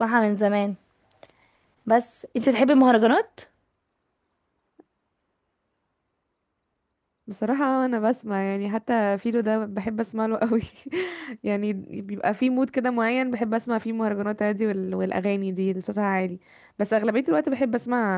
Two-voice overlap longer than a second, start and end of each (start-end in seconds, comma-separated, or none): none